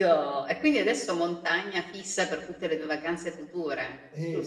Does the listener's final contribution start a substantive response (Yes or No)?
Yes